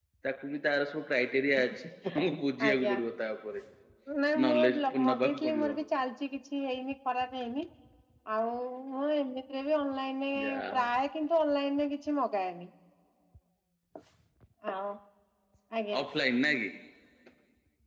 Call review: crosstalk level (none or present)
present